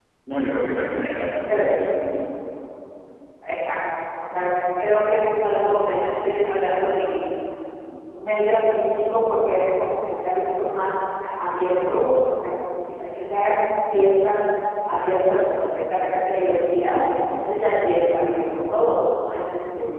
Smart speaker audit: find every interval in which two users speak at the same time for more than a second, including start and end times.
none

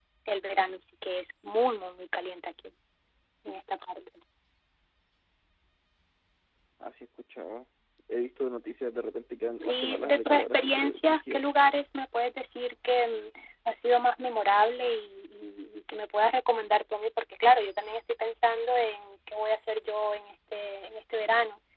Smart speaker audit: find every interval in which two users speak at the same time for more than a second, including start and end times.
9.6-11.4

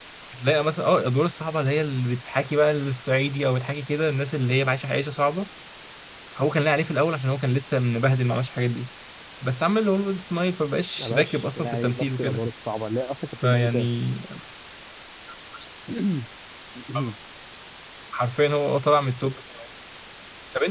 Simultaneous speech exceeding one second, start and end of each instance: 11.0-12.4

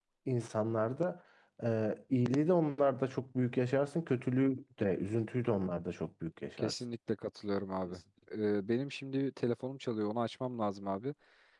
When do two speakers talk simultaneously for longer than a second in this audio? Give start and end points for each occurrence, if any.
none

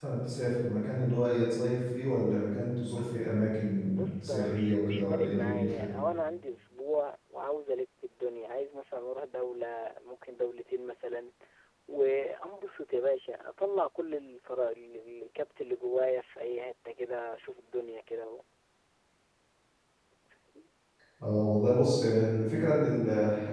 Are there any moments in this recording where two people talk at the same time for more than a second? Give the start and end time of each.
3.9-5.9

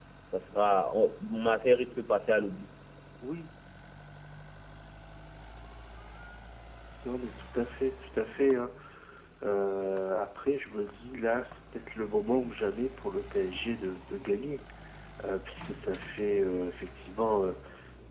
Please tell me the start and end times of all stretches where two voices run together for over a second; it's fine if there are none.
none

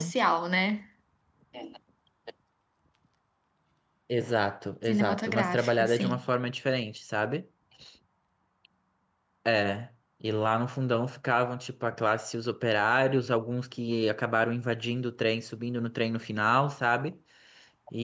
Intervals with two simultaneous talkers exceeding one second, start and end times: 4.9-6.2

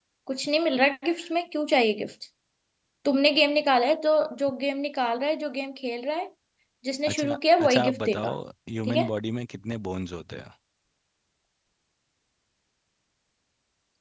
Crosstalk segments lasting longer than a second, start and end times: 7.1-8.3

